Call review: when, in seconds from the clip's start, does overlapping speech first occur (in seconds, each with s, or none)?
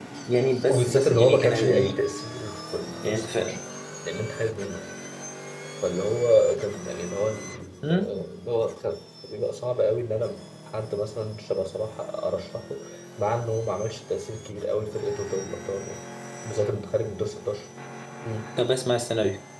0.7 s